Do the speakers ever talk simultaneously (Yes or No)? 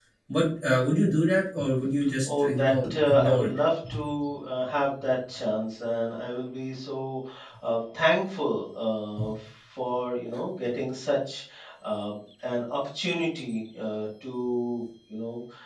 Yes